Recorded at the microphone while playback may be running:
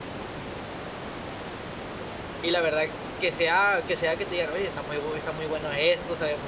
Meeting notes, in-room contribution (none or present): present